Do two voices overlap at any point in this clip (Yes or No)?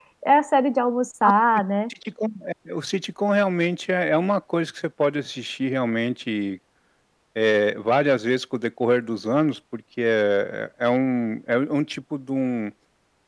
No